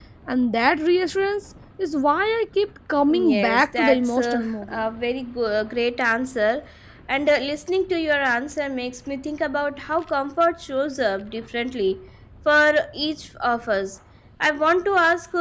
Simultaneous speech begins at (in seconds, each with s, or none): 3.1 s